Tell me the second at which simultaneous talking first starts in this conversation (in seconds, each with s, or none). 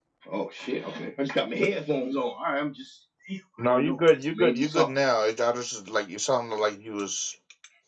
3.6 s